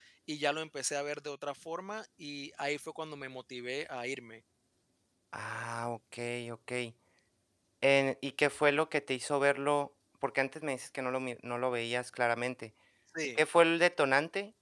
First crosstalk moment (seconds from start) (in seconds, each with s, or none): none